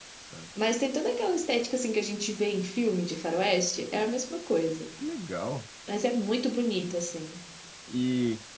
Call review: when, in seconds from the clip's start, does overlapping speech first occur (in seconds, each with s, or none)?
none